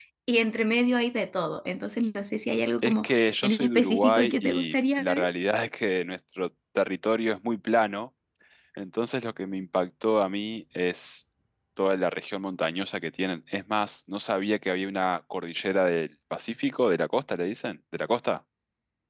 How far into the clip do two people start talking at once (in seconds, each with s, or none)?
2.8 s